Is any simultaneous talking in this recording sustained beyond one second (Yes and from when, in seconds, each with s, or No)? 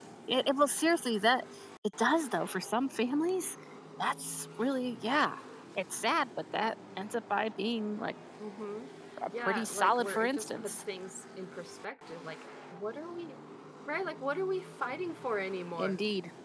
Yes, from 9.4 s